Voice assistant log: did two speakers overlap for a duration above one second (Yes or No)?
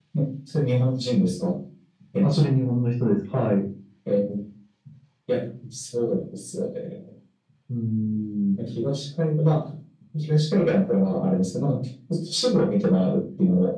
No